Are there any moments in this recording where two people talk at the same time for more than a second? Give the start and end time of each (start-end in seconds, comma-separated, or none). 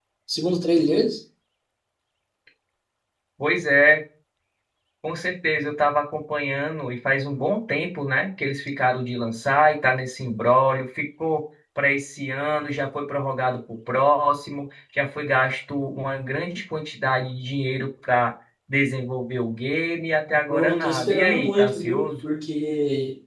20.5-22.1